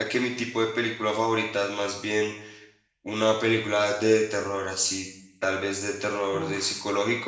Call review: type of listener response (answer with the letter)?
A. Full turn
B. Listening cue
B